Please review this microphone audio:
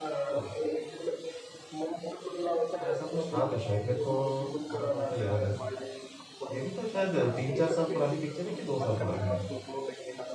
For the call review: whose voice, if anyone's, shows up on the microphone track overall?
both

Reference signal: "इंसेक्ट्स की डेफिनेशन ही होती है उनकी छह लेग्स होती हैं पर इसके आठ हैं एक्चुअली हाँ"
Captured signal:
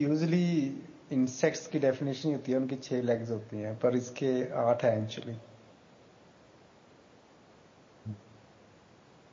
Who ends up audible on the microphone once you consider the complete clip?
echo only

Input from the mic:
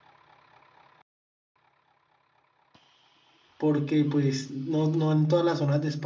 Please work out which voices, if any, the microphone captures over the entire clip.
user only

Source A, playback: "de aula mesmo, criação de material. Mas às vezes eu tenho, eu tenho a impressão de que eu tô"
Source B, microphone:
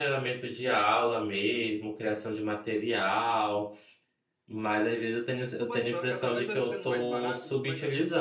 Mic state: both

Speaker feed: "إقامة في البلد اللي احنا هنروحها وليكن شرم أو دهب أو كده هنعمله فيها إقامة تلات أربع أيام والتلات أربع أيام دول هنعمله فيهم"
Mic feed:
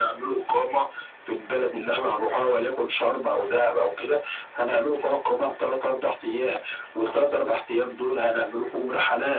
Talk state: echo only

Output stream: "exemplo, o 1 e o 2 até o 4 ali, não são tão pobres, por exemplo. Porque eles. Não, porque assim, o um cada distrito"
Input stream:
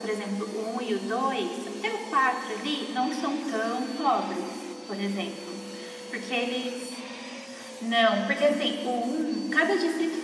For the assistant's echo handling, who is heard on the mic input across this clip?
echo only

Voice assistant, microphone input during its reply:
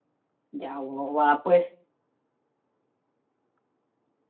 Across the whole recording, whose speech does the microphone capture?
user only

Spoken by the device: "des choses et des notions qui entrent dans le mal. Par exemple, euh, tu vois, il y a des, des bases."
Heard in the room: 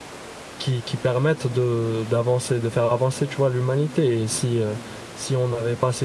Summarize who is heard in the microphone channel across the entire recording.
user only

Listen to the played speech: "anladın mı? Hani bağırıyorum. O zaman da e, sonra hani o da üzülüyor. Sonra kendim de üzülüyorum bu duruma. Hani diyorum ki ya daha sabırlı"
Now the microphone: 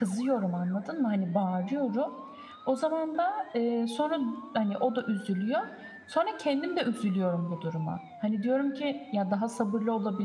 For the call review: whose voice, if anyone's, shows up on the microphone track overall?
echo only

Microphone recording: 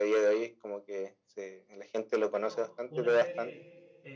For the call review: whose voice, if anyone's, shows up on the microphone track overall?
both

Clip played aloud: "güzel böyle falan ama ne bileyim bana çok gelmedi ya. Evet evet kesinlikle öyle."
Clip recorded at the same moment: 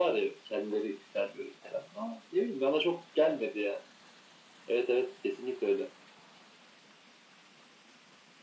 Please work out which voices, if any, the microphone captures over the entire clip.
echo only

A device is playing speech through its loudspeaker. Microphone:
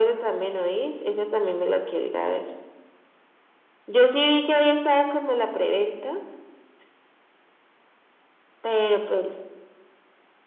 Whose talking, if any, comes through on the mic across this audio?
echo only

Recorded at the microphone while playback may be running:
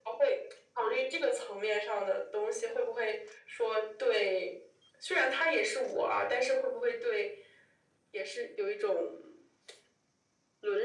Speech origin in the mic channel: echo only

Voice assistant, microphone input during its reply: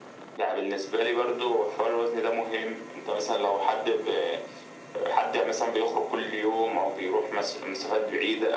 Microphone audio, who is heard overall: echo only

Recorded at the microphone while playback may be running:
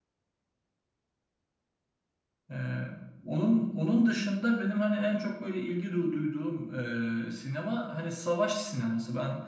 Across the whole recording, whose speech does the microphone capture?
user only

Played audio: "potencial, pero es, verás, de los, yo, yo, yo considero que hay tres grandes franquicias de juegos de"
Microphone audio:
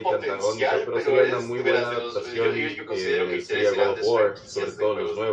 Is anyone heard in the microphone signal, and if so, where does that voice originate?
both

